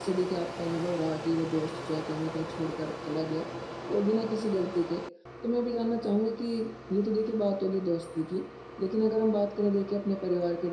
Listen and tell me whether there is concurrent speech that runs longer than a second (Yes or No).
No